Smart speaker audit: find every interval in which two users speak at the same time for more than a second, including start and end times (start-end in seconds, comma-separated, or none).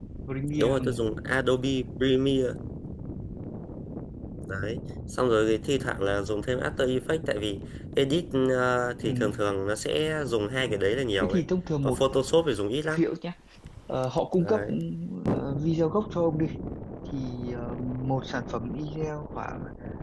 none